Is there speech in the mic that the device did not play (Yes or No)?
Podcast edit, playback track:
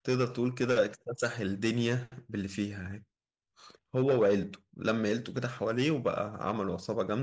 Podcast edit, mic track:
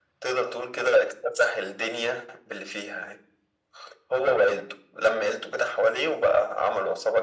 No